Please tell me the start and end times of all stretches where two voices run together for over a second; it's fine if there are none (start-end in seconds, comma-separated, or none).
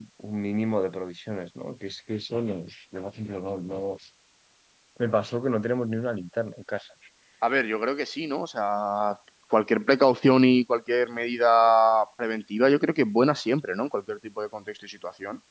none